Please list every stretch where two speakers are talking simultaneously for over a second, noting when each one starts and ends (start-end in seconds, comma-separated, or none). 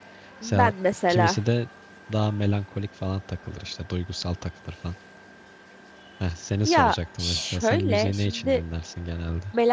6.7-8.6